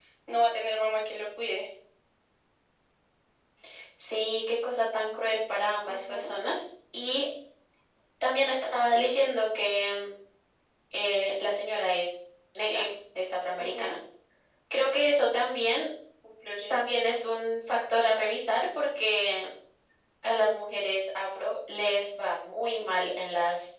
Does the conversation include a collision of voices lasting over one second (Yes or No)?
No